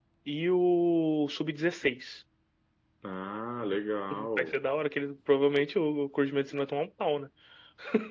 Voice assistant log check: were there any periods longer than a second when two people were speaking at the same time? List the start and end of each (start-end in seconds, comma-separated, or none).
none